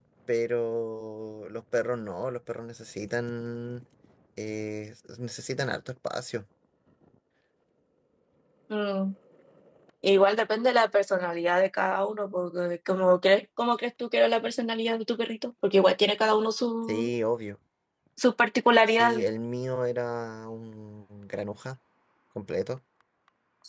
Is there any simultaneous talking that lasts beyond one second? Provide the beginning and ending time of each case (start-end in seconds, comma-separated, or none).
none